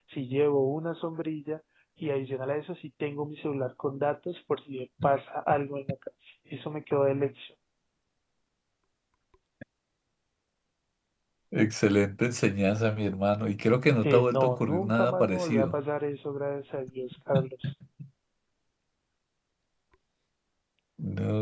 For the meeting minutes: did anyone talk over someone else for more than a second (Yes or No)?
Yes